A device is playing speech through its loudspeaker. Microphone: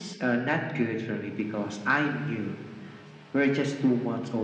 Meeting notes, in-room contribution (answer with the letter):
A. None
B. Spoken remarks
A